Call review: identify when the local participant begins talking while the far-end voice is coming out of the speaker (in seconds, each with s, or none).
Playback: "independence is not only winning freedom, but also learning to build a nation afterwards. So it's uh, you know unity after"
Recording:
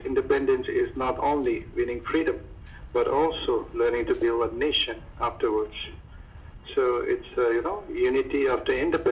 none